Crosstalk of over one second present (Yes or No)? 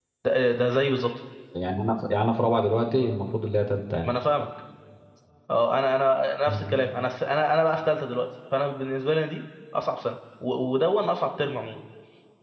No